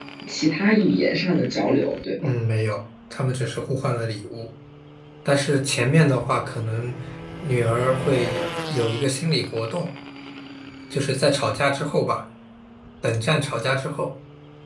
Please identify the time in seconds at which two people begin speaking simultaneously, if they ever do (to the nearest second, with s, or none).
none